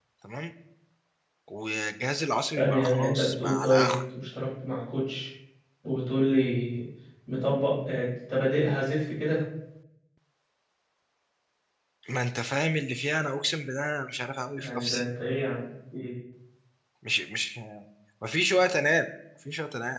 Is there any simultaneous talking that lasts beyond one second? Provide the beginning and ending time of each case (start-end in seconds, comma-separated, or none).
2.6-3.9